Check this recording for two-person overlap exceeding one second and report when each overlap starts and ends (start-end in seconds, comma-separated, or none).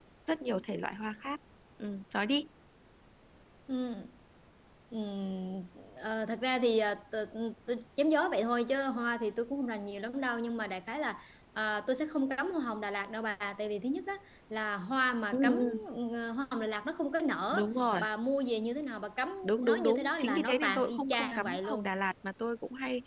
19.4-21.9